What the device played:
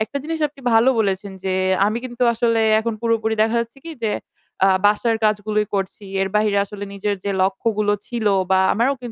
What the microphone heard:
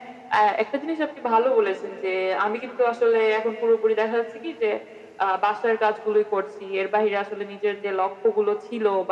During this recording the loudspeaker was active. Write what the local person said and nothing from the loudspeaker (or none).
none